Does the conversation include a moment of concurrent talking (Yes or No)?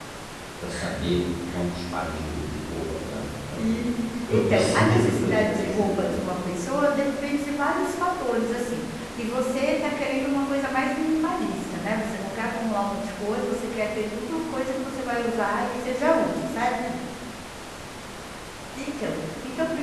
Yes